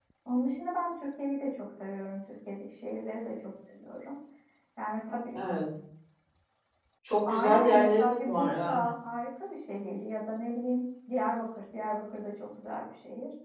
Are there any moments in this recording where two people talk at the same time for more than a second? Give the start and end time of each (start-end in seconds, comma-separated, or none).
7.2-8.8